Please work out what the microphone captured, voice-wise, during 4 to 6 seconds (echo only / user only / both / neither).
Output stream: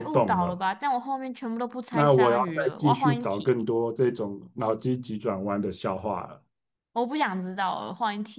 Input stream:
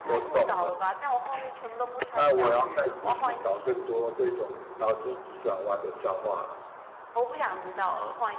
echo only